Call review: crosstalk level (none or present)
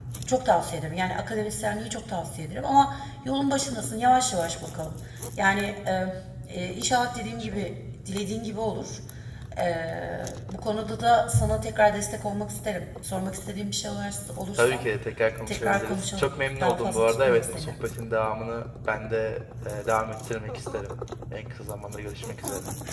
present